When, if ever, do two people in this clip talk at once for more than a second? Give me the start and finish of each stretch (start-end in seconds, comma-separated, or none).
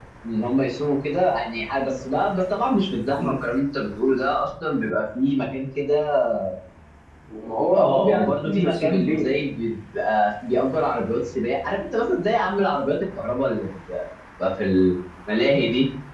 7.8-9.3